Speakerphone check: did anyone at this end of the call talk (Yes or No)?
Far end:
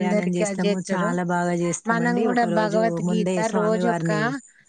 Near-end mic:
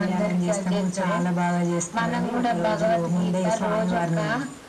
No